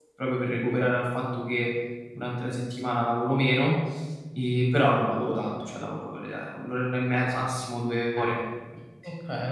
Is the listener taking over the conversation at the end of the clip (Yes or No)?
Yes